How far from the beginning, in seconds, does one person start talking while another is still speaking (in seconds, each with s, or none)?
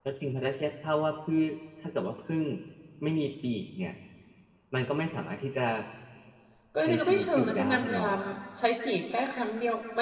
6.8 s